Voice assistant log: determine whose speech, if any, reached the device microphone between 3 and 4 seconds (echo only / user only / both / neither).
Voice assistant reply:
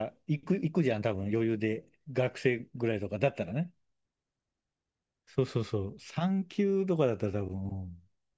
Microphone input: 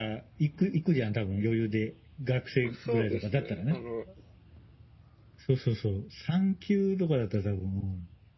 both